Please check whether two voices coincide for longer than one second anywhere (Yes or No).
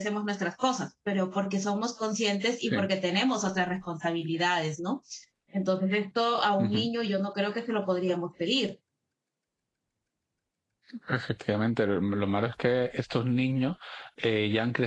No